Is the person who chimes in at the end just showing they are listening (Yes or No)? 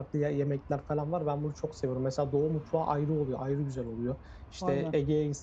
Yes